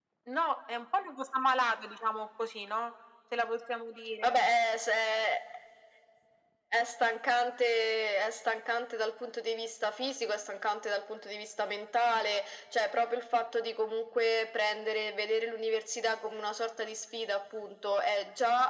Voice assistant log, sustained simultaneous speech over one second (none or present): none